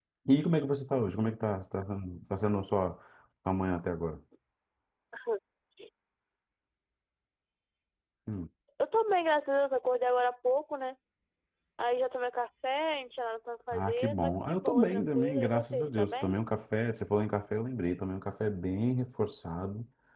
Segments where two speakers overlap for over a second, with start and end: 13.7-16.3

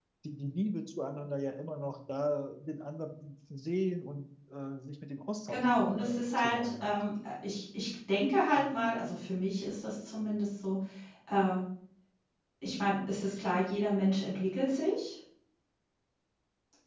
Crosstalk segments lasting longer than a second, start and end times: 5.5-7.0

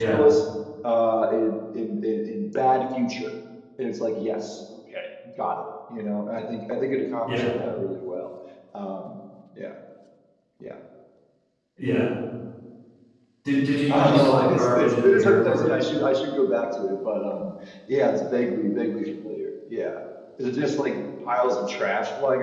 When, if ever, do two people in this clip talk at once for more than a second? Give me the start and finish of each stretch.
13.9-15.6

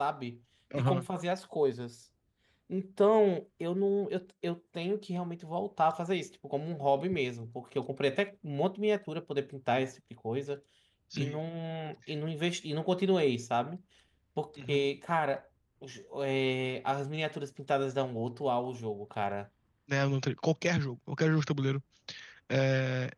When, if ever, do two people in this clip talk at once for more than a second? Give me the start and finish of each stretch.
none

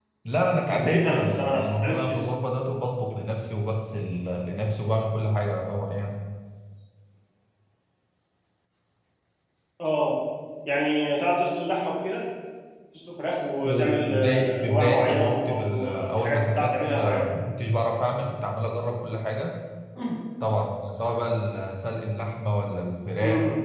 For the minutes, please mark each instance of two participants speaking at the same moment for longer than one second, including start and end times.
0.7-2.2, 13.6-17.2

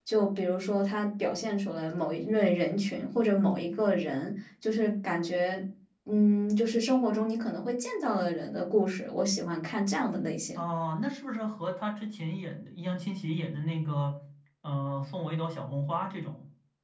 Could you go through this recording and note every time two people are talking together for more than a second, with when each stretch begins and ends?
none

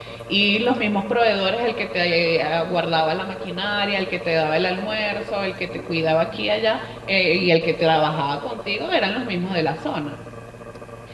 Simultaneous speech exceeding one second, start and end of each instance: none

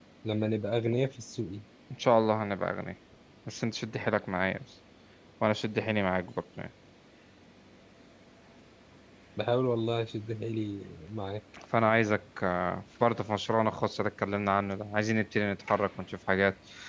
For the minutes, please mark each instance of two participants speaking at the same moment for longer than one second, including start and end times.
none

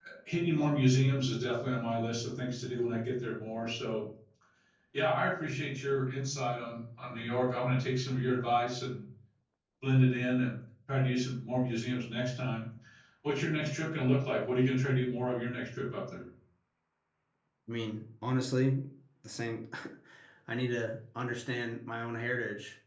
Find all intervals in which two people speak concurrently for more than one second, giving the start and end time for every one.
none

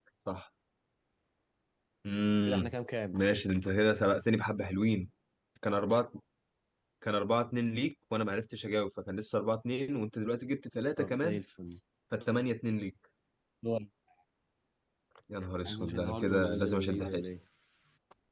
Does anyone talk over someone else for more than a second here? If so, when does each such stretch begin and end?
15.7-17.2

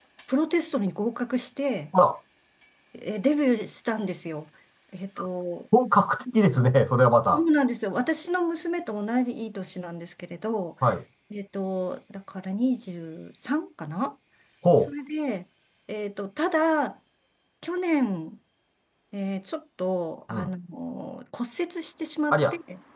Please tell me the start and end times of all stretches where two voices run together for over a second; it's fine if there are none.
none

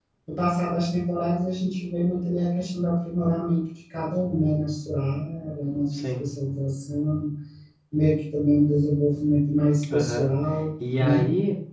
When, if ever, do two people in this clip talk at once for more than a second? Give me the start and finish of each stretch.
none

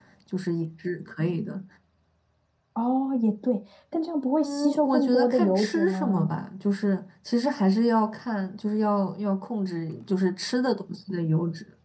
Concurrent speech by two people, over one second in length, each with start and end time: 4.4-6.3

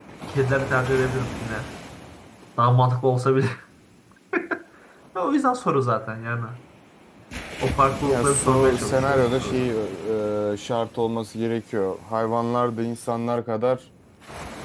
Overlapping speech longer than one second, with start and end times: 8.1-9.7

